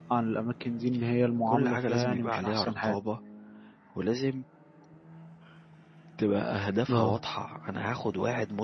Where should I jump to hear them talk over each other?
1 s

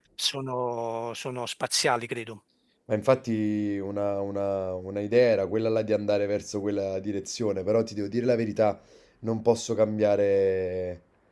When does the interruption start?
none

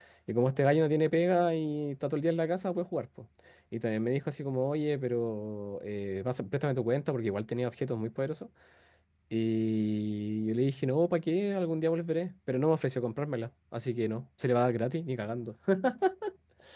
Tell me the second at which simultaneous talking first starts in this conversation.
none

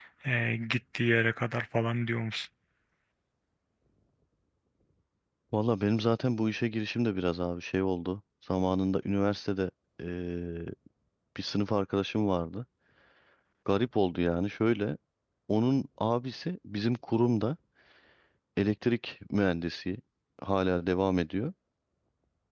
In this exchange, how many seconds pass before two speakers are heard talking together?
none

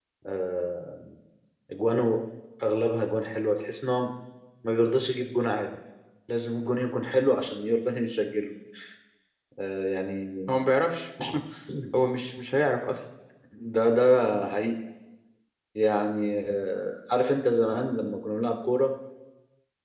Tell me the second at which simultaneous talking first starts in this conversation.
none

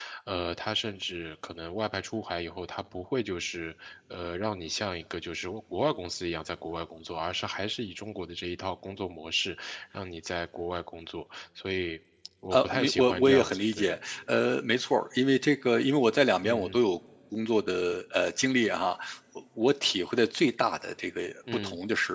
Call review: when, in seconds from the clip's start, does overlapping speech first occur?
13 s

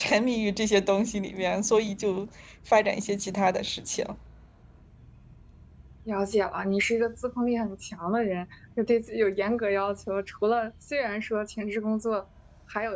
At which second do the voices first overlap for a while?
none

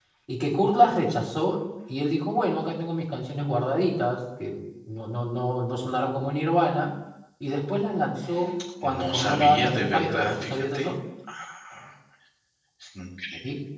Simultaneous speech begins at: 9 s

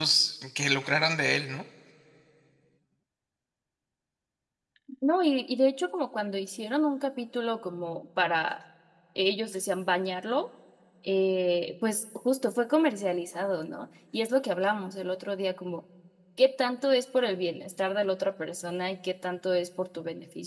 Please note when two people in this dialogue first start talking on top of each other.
none

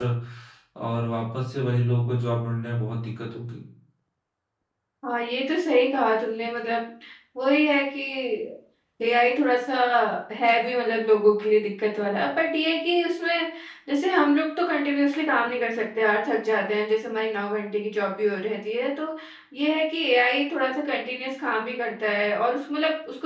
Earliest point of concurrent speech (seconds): none

